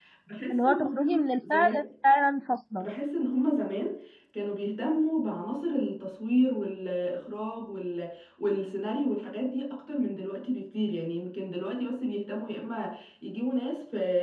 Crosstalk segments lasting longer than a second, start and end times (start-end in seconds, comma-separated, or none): 0.5-1.8